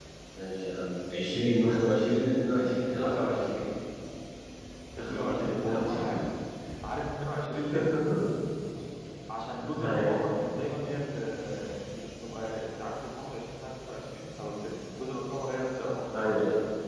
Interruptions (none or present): present